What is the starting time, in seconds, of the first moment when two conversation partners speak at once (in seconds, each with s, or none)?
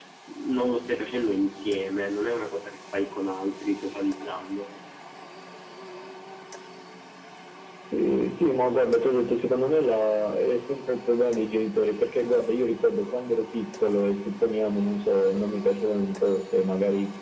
none